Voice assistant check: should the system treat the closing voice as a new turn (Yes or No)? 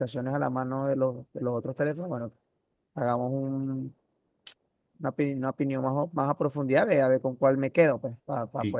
Yes